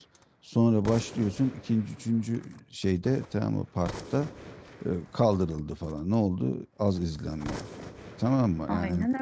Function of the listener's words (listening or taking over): listening